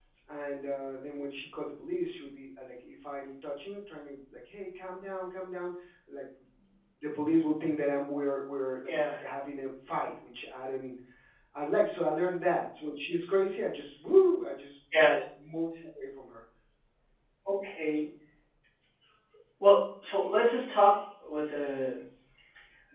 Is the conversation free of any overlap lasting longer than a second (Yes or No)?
Yes